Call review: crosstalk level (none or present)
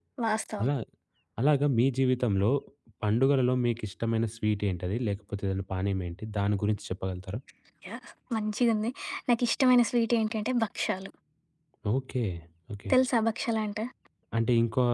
none